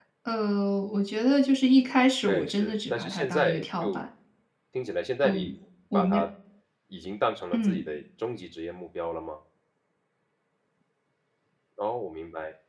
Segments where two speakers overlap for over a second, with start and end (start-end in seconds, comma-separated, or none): 2.3-4.0